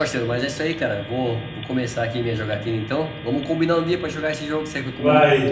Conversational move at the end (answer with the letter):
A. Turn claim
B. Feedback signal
A